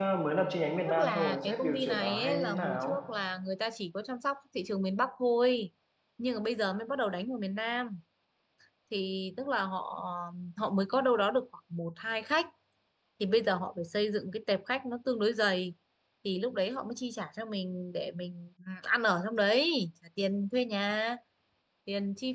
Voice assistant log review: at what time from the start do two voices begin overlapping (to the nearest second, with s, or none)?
1 s